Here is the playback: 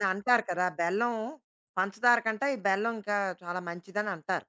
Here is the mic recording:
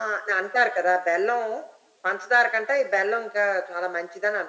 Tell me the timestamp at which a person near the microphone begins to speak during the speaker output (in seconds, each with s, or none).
none